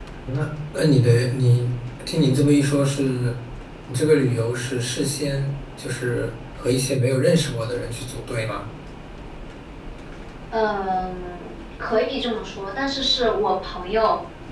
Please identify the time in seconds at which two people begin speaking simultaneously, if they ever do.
none

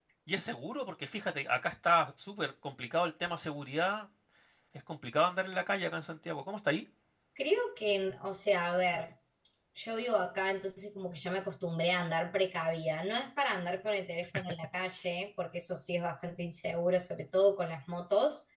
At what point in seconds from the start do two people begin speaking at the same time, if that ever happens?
none

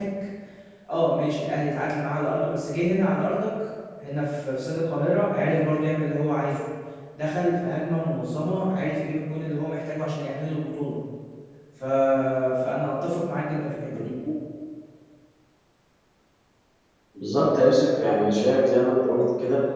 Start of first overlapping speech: none

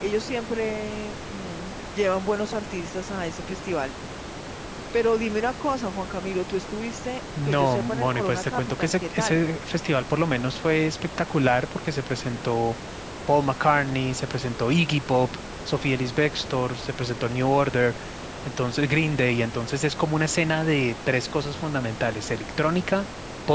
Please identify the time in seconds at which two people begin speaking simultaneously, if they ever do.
7.4 s

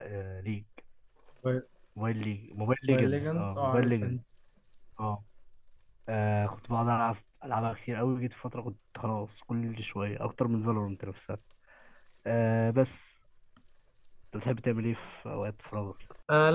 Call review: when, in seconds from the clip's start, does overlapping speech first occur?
2.8 s

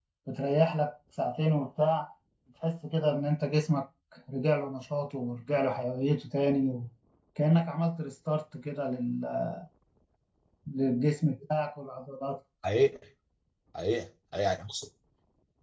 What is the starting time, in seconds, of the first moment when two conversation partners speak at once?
none

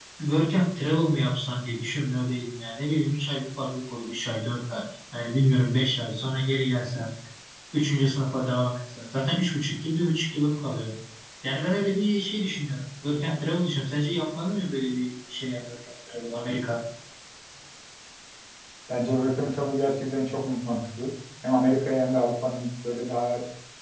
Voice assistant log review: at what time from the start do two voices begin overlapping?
none

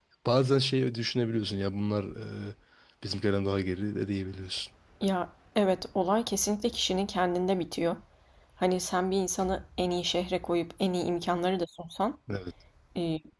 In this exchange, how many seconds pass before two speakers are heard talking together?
none

